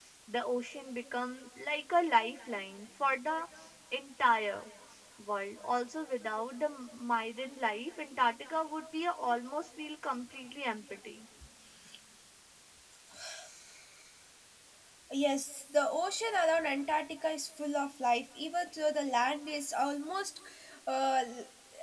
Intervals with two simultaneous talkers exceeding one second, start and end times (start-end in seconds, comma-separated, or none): none